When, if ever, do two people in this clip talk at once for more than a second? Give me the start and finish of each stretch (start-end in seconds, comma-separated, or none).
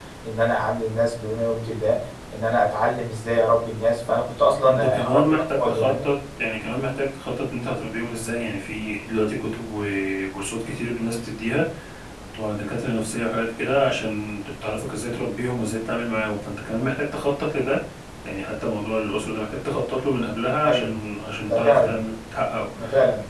4.7-6.0